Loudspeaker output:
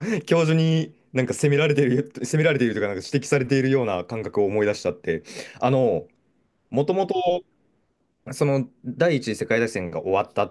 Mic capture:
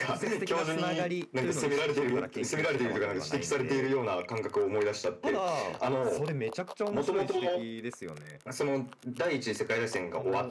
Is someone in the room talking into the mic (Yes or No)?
Yes